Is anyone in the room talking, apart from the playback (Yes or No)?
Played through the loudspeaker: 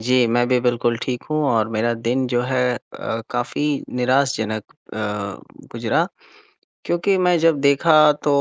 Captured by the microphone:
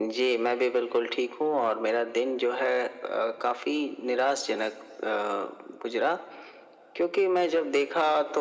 No